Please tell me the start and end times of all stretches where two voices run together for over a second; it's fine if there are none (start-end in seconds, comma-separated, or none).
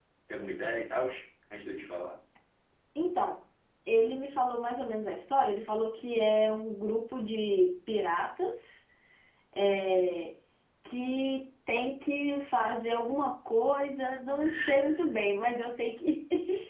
none